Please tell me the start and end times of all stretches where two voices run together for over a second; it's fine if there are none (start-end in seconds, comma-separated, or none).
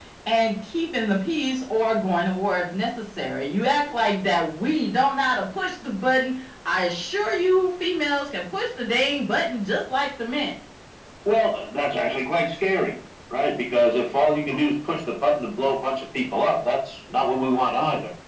none